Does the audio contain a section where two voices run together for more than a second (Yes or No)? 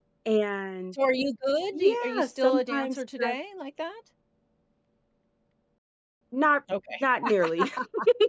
Yes